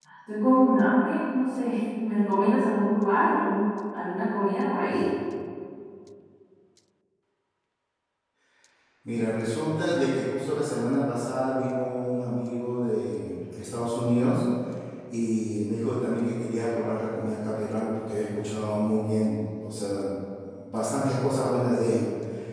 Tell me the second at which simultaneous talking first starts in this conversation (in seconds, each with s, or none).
none